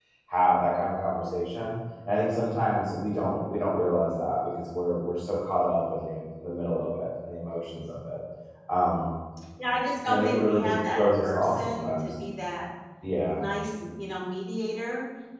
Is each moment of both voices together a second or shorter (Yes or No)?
No